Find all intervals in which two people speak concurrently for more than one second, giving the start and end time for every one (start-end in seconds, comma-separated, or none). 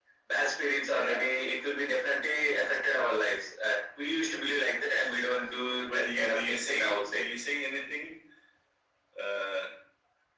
5.8-7.2